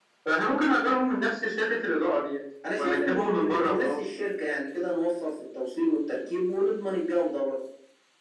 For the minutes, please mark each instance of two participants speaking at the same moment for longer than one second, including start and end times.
2.8-4.0

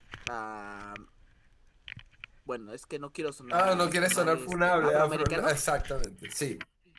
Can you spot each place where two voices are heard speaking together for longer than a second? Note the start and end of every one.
3.5-5.5

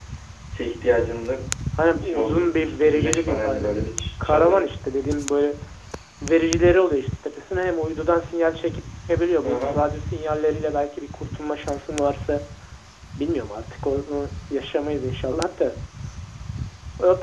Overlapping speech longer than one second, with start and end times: 2.0-3.8

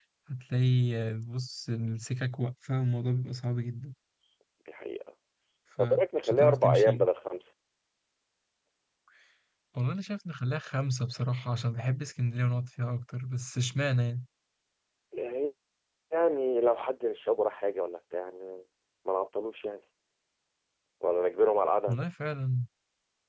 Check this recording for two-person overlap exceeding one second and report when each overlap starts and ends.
5.8-7.1

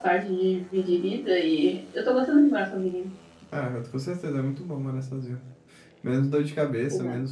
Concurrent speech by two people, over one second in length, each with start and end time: none

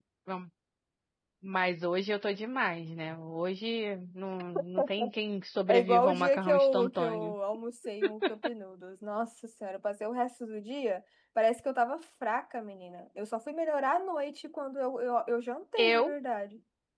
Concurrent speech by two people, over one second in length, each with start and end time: 5.7-7.3

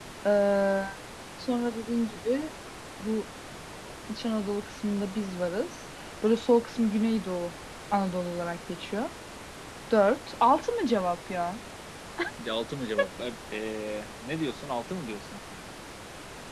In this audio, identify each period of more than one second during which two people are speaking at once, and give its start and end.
none

